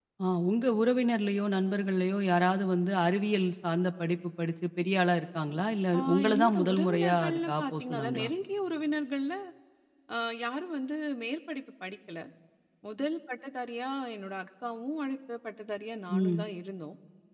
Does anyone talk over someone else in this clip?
Yes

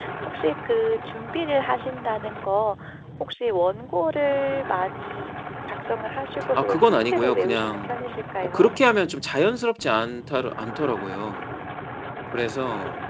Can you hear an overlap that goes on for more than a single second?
Yes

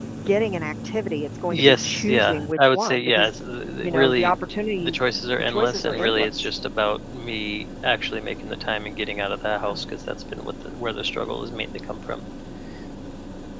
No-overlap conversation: No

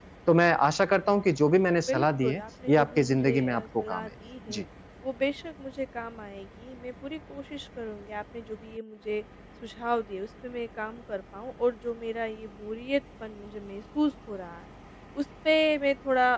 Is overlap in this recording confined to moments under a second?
No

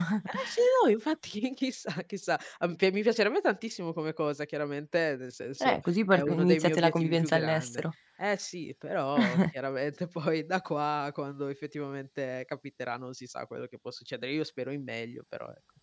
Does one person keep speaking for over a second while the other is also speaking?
Yes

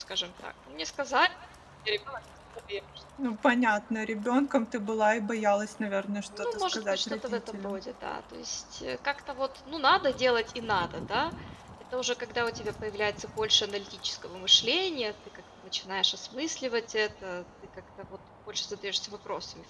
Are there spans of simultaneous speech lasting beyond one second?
Yes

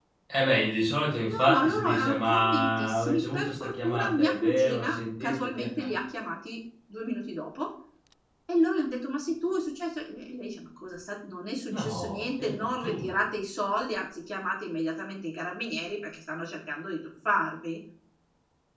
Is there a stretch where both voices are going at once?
Yes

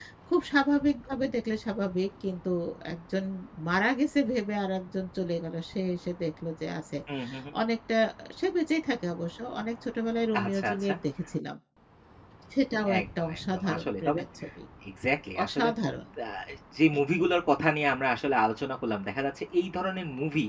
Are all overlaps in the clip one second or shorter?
No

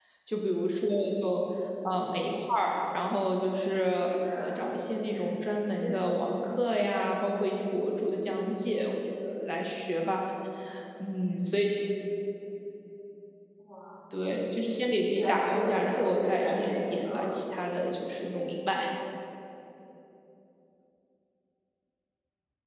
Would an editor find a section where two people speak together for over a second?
Yes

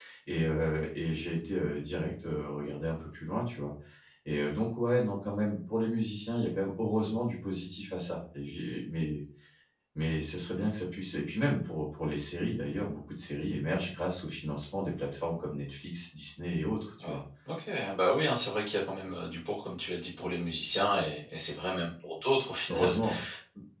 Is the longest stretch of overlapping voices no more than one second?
Yes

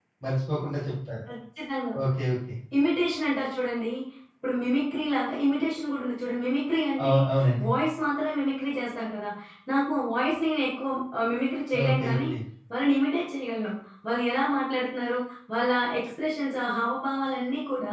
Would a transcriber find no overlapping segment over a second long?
Yes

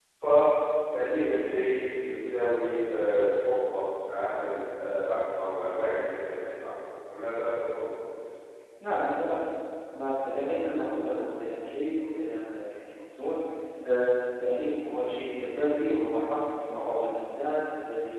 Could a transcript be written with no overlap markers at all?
Yes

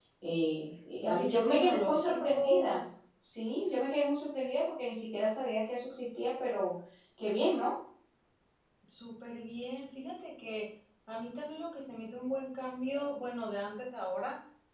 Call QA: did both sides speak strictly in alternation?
No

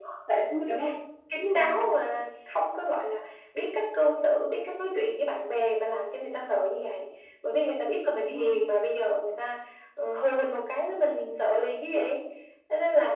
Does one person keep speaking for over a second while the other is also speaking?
No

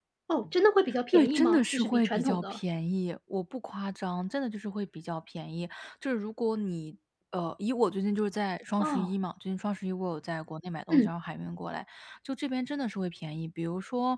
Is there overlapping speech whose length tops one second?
Yes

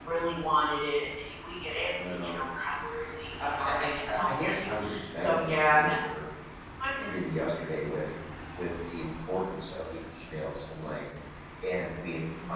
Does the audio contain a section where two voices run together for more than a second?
Yes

